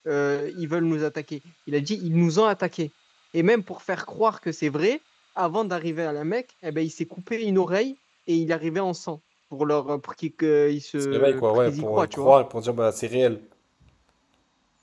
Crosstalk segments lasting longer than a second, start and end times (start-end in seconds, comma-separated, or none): 11.1-12.3